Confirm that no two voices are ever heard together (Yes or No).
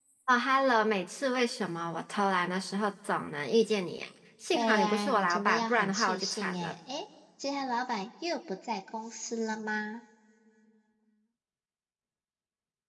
No